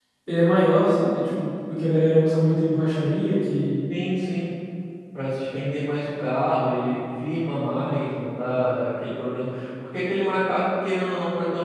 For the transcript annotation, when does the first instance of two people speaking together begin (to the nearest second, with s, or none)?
none